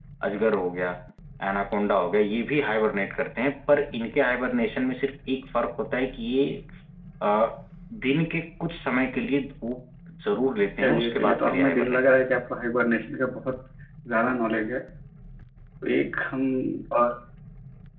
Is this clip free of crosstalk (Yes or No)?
No